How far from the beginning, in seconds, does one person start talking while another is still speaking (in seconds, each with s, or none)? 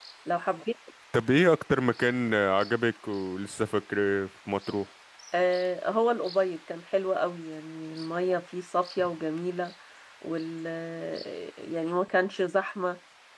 none